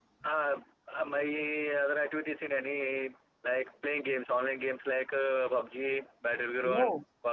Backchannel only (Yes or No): Yes